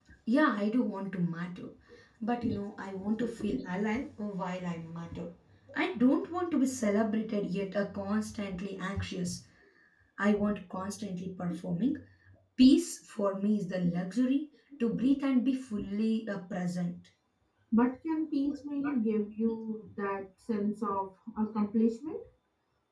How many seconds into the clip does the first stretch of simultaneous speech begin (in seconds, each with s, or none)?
none